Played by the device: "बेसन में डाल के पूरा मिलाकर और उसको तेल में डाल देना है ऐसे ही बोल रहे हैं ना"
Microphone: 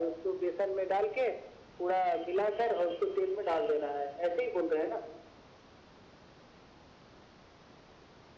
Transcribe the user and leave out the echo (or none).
none